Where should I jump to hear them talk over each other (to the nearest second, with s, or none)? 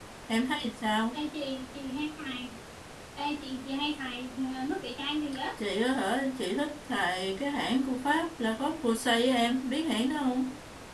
none